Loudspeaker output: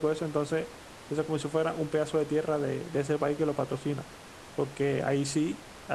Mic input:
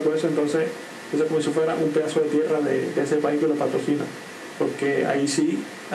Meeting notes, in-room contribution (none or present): none